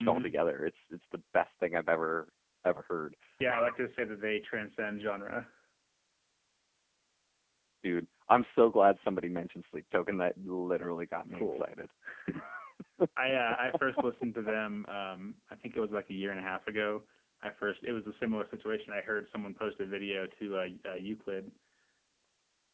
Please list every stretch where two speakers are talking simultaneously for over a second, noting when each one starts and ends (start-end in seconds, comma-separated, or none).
none